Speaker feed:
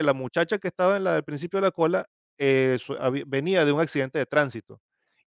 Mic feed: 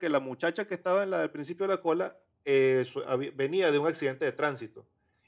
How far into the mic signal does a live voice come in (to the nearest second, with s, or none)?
none